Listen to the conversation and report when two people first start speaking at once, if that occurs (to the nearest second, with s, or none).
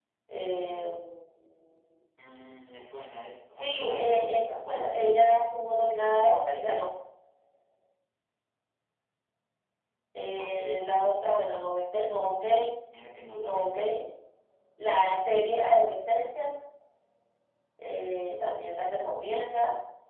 4 s